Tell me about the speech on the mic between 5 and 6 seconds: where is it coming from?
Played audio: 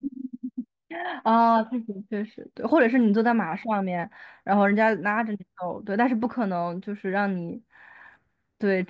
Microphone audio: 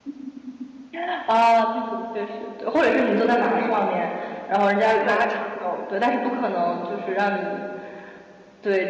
both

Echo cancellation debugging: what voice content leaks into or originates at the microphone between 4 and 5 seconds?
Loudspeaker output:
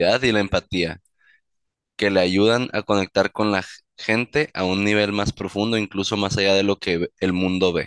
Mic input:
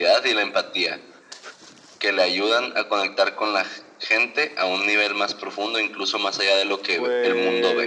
echo only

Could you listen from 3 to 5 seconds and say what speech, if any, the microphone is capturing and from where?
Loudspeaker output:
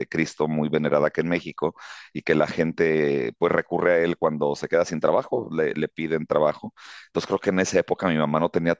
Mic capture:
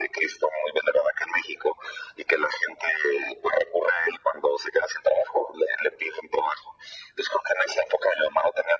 echo only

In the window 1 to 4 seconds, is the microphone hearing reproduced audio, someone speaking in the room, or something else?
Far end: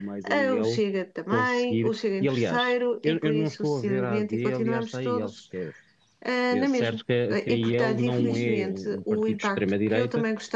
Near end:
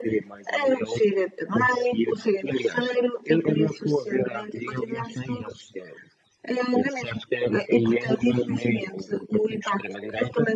echo only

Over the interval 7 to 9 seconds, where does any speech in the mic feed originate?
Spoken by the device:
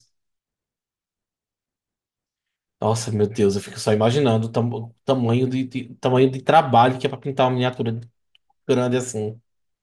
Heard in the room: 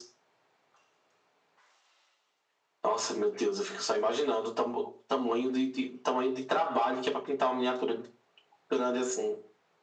echo only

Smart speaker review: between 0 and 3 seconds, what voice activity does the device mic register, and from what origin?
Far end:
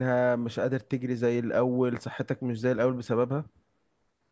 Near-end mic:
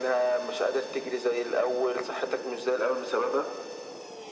echo only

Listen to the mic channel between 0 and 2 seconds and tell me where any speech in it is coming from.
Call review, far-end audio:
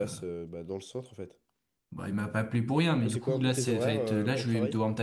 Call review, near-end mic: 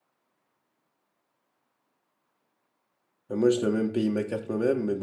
neither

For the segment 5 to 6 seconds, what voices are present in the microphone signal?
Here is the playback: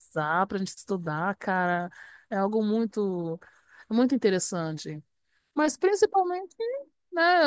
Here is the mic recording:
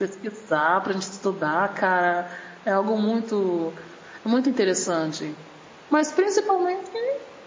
echo only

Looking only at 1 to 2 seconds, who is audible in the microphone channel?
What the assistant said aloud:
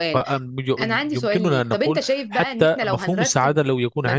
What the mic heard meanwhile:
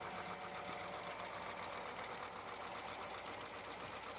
neither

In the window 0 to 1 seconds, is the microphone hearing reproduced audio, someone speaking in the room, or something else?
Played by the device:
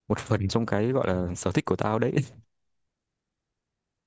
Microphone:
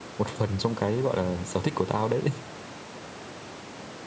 echo only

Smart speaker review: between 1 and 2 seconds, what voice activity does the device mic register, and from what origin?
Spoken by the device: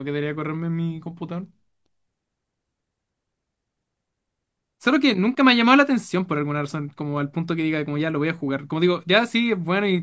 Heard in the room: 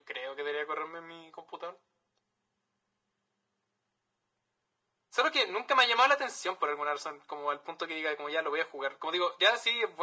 echo only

